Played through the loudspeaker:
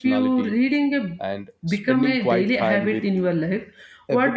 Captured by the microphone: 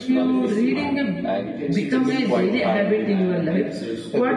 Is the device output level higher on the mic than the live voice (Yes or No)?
Yes